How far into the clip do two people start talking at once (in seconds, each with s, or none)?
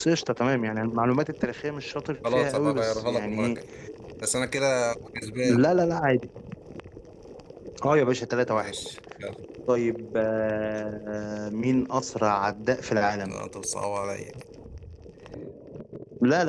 2.3 s